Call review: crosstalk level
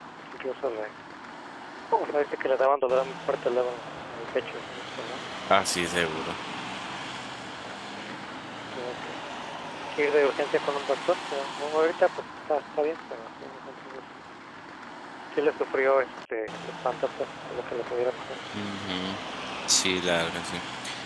none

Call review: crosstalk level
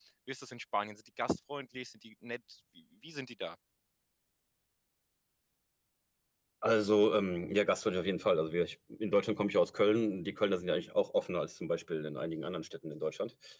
none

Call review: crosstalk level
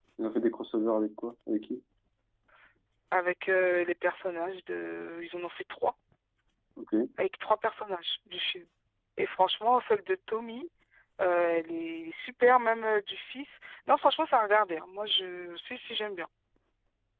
none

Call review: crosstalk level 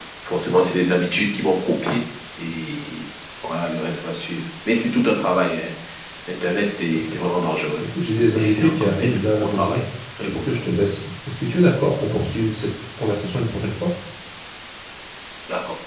present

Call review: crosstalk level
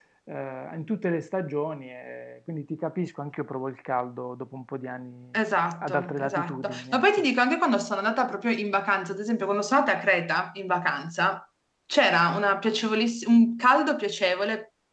present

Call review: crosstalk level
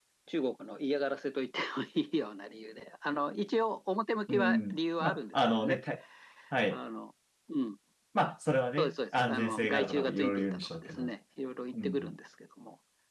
present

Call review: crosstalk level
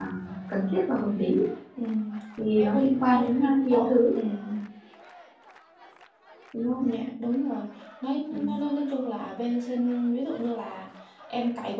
present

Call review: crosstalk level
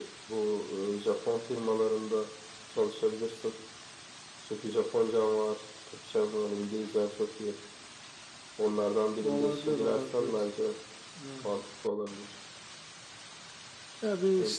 present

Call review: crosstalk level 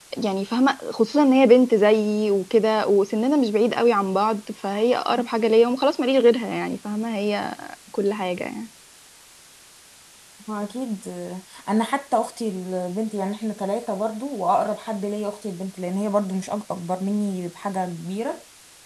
none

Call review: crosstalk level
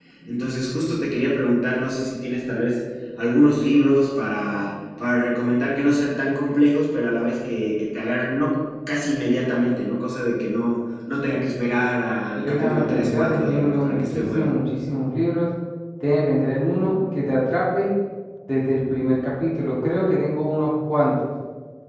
present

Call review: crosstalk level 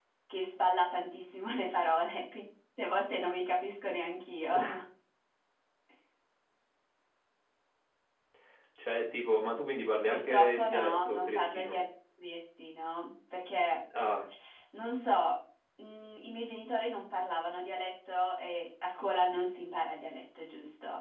present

